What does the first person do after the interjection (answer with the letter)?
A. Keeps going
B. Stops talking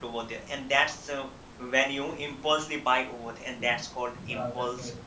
B